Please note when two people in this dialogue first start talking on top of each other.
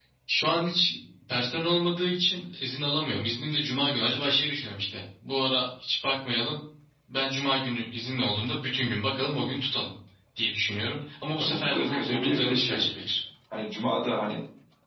11.4 s

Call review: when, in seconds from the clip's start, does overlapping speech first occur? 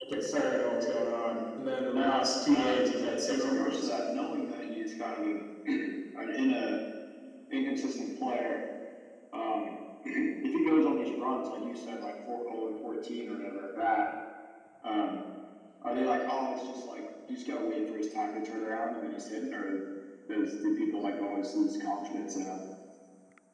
1.9 s

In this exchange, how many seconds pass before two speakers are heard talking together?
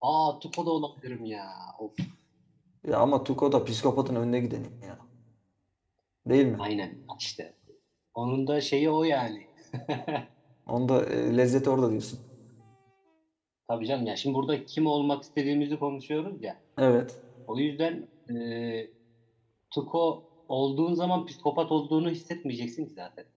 none

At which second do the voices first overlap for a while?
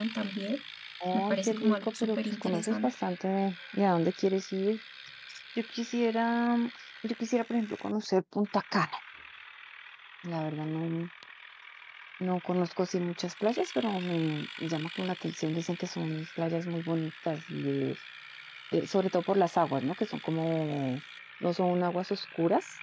1.1 s

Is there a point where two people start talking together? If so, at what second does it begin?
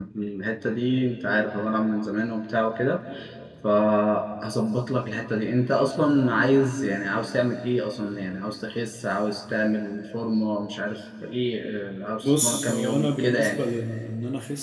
12.2 s

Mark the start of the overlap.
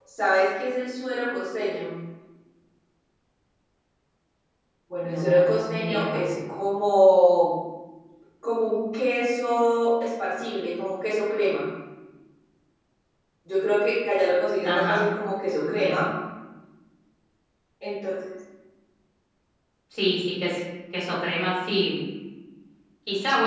5.0 s

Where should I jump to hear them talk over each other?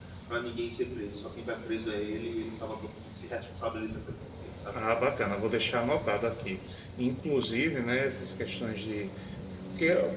none

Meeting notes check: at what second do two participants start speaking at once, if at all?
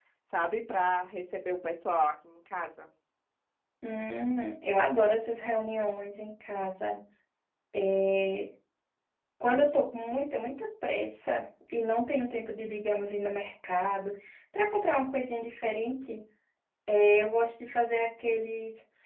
none

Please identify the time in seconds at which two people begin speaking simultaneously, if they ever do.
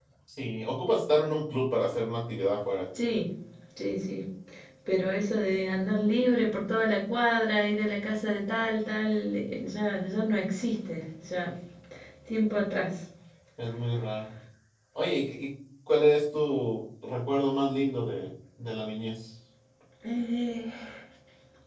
none

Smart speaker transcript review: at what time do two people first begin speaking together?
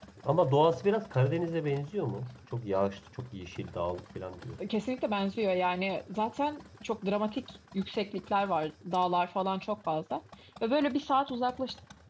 none

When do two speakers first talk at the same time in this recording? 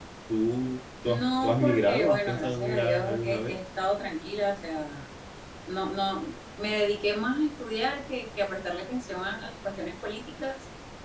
1.0 s

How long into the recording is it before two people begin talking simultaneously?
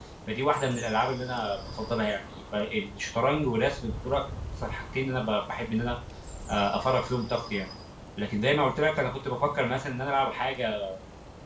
none

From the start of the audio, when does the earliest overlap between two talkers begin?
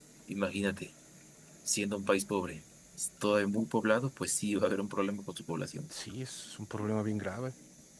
none

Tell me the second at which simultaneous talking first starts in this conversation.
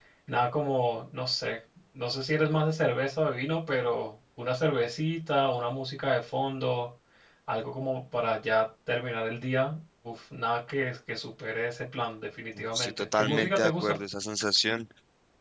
12.7 s

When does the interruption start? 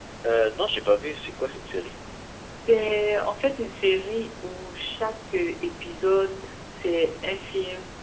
none

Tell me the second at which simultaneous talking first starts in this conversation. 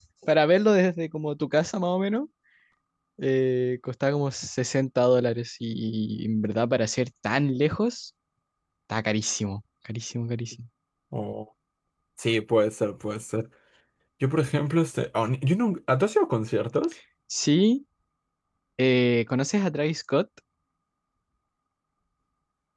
none

